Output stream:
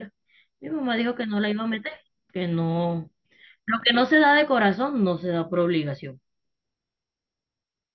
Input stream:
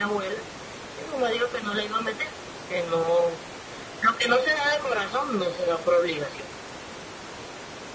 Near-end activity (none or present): none